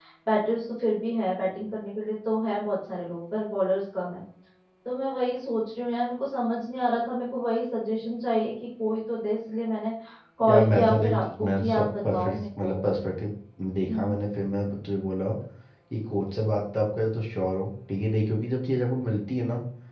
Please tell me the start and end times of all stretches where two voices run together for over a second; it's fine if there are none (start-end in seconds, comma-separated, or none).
10.5-12.8